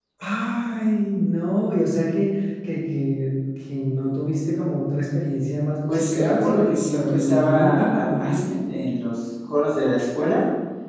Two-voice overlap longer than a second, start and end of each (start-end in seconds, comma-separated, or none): 5.9-8.4